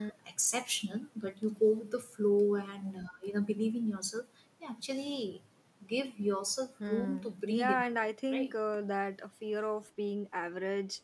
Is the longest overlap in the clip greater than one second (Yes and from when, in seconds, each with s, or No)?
Yes, from 6.8 s